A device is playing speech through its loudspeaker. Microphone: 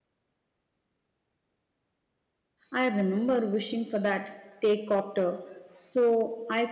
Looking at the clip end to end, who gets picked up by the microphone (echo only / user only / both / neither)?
user only